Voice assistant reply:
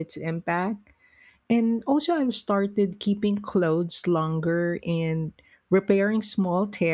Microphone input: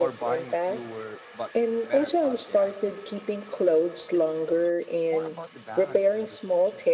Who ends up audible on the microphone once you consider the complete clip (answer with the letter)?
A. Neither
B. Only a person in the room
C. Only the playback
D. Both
D